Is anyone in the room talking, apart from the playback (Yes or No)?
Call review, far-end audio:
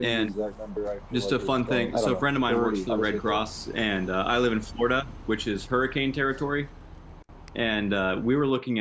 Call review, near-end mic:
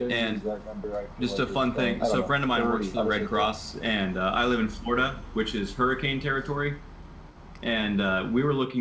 No